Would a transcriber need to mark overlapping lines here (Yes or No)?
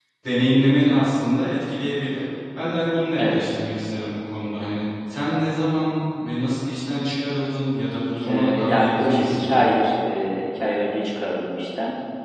Yes